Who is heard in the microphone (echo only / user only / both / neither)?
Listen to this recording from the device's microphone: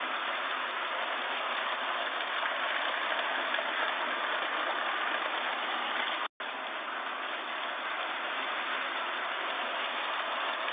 neither